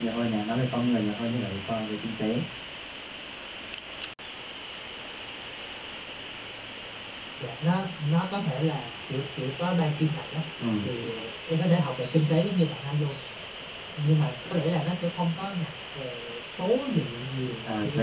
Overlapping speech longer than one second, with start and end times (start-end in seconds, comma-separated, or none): none